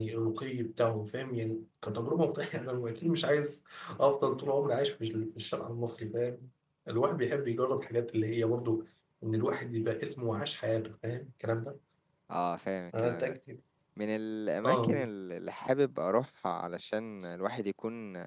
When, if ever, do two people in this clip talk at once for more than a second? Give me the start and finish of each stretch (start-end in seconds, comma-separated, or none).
none